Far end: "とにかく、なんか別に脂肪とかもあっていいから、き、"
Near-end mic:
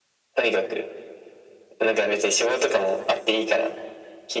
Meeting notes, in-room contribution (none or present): none